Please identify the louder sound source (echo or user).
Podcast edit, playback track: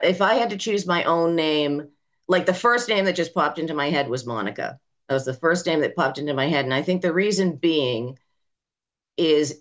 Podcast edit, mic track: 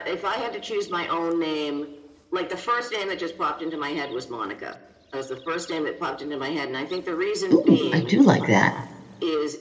user